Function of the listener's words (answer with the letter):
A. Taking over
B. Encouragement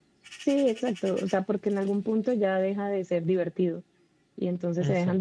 B